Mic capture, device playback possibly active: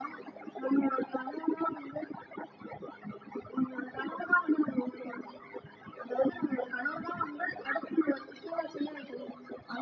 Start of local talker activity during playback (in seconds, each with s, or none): none